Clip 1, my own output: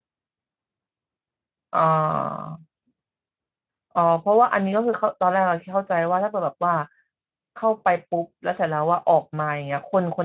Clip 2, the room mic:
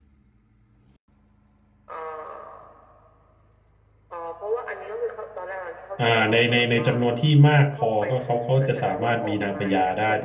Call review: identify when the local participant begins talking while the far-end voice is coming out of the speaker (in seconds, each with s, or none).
6.0 s